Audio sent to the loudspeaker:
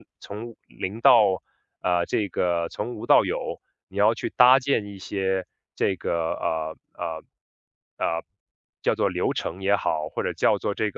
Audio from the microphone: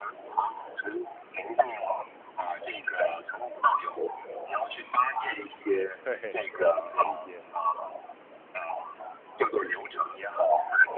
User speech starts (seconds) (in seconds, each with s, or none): 5.9 s